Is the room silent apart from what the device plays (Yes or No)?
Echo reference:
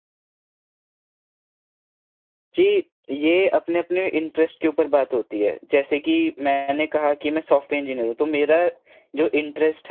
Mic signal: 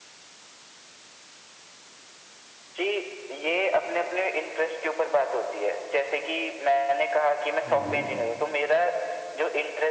No